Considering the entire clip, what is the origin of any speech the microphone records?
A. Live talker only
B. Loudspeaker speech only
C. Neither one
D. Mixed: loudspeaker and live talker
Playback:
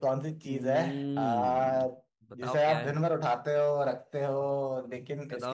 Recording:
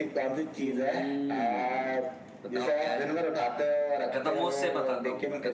D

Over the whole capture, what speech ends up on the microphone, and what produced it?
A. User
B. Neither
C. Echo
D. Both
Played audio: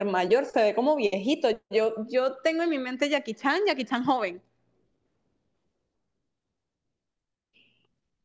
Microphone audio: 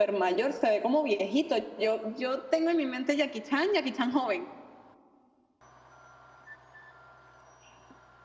C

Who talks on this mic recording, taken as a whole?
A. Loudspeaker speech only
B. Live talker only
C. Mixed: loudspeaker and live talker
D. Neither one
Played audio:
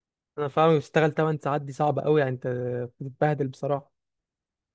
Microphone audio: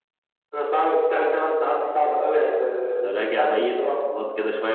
C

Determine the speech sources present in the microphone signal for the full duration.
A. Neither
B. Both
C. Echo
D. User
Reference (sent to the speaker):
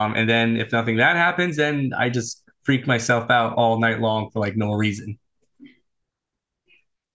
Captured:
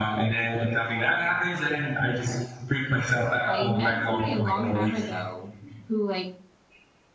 B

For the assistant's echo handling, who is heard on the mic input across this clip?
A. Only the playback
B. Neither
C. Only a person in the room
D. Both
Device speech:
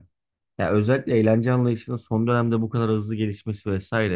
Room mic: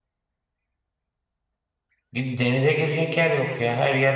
C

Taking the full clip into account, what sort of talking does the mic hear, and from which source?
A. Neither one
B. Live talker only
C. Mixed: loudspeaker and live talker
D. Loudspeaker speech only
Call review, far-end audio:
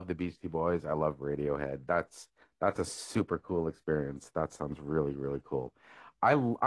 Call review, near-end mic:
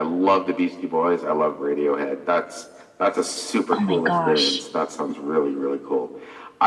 C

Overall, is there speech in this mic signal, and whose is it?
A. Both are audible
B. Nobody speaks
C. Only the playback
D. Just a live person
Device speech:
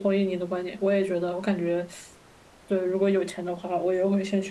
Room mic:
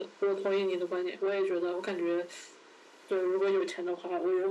C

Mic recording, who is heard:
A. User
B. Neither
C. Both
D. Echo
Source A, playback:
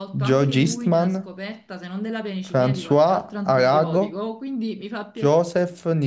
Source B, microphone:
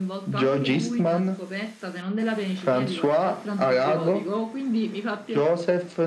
D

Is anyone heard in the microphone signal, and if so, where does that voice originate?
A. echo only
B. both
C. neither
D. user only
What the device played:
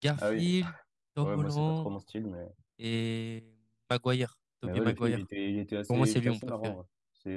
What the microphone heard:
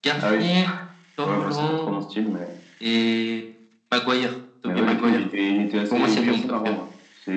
A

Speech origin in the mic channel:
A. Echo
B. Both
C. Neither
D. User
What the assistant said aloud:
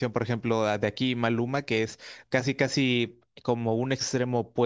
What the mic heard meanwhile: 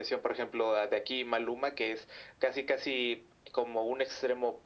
A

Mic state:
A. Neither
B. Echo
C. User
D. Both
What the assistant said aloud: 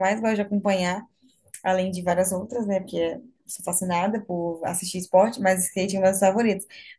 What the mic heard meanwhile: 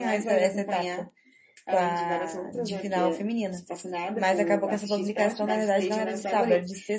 D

